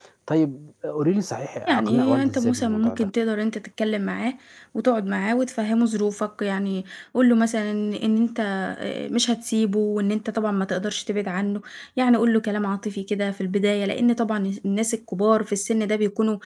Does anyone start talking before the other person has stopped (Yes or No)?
Yes